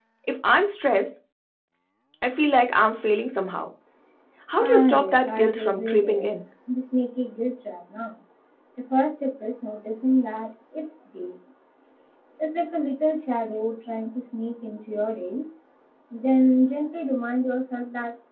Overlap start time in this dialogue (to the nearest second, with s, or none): 5 s